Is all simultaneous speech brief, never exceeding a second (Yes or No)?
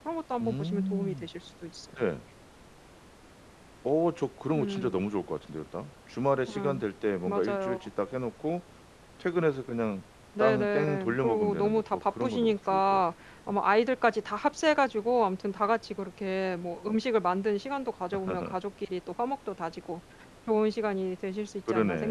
No